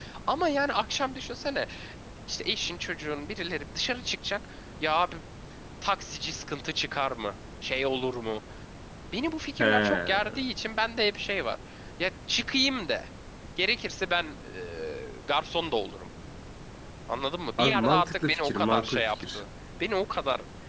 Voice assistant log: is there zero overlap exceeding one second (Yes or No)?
No